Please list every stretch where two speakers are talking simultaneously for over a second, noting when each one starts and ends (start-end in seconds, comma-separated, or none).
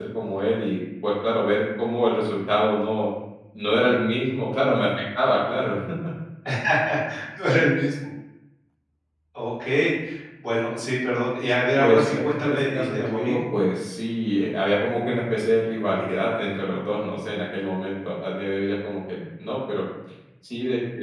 11.8-13.4